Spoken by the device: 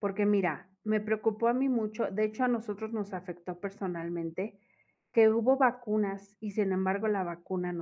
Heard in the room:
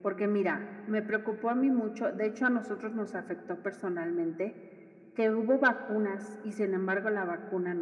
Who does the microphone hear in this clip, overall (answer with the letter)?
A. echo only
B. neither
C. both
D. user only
A